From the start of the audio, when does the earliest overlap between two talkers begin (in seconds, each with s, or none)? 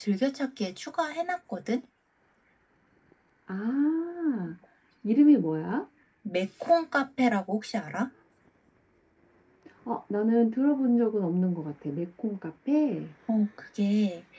none